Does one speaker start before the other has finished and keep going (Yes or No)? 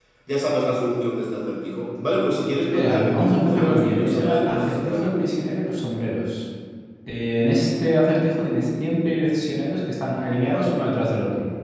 Yes